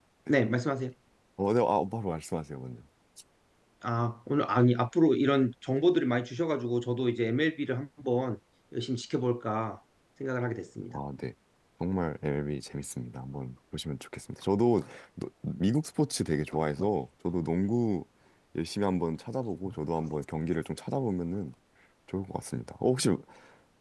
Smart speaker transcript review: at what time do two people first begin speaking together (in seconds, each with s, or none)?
none